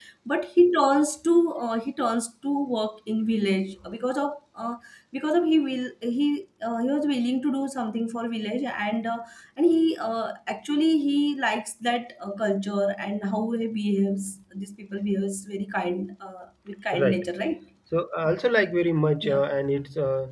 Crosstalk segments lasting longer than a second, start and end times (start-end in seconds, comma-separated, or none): none